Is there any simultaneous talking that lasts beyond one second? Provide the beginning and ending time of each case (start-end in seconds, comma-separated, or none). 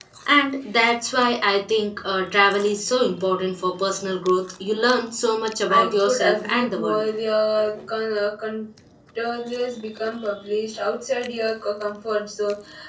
5.7-7.0